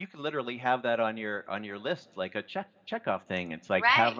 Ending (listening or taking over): taking over